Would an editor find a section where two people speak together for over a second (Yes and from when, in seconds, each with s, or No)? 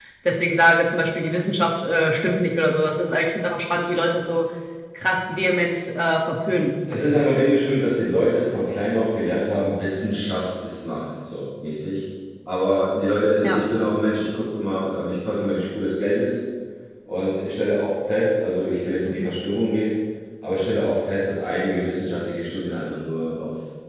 No